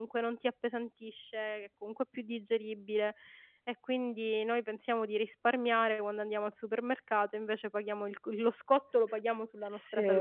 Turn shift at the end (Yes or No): Yes